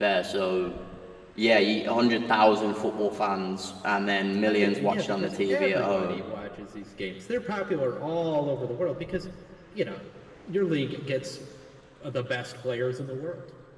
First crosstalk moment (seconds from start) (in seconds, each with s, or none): 4.4 s